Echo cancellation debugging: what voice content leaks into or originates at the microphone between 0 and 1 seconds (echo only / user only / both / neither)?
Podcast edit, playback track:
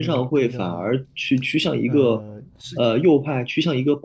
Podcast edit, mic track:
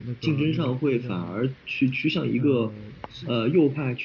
echo only